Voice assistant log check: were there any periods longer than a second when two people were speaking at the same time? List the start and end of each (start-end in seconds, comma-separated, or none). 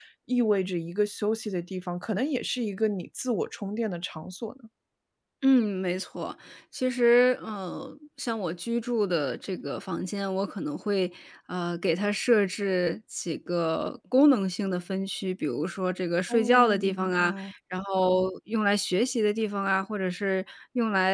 16.3-17.5